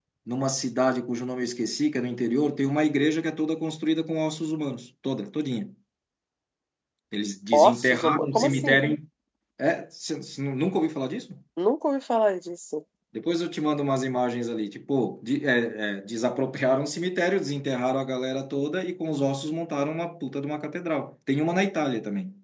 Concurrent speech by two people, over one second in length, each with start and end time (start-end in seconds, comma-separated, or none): 7.5-8.8